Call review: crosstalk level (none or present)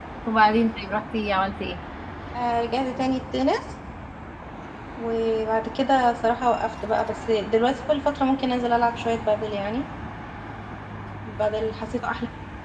none